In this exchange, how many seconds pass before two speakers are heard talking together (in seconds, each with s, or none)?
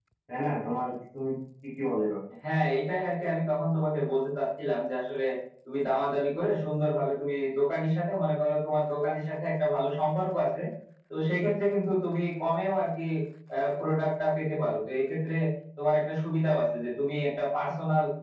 none